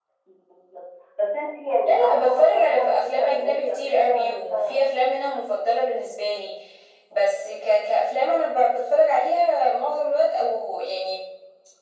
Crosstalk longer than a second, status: present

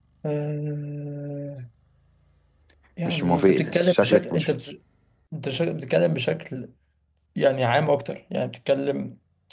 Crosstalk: present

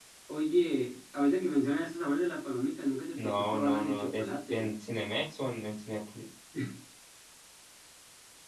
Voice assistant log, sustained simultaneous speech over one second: present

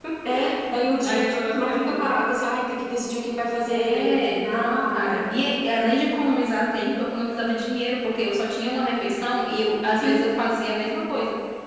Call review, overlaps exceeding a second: present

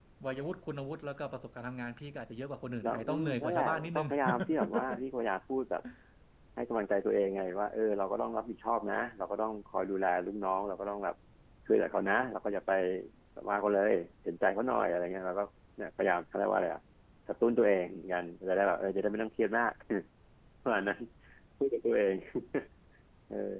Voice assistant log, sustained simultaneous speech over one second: present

